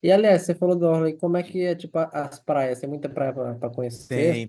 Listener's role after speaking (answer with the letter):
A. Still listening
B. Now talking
B